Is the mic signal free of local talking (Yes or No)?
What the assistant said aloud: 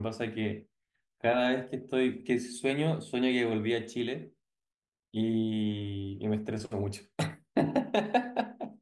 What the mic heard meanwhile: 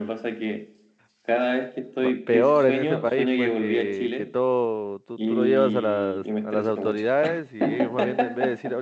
No